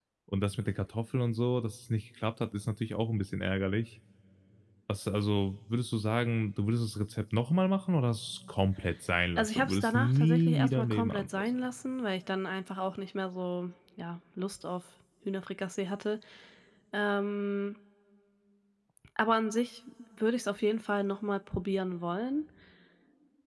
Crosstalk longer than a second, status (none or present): present